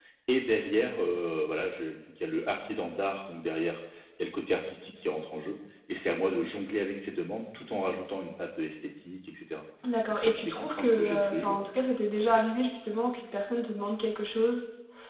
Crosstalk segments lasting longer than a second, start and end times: 10.1-11.7

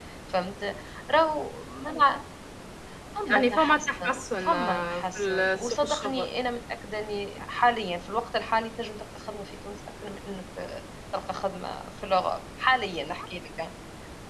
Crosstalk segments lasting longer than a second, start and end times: 3.3-6.3

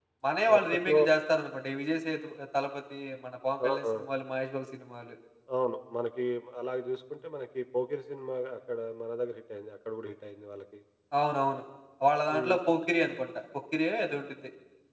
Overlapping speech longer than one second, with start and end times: none

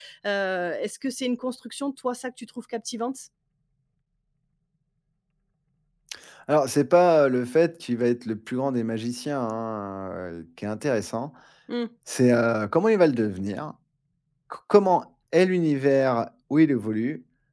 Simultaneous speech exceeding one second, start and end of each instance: none

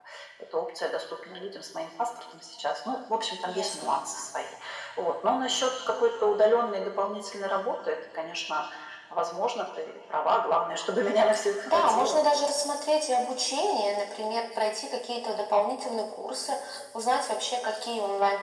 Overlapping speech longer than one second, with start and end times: none

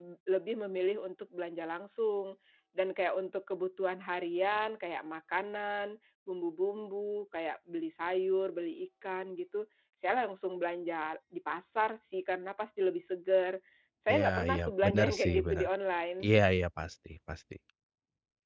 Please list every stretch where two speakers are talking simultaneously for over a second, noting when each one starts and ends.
14.1-15.7

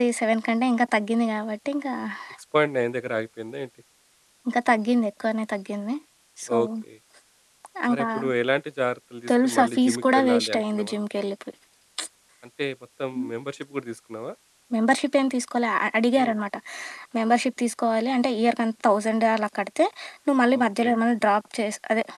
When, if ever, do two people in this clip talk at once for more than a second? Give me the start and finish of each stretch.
9.3-10.9

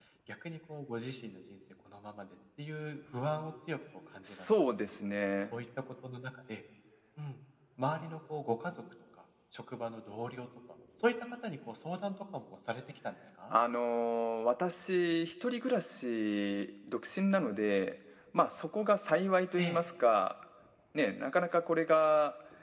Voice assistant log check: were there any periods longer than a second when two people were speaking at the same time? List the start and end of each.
none

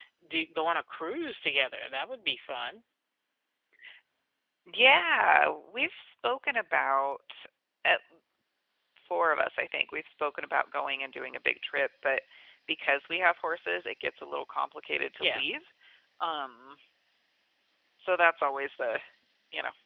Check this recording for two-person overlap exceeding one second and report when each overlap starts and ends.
none

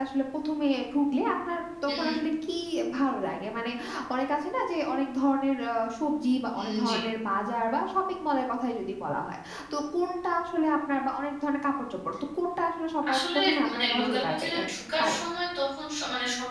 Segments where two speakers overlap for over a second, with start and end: 13.1-14.6

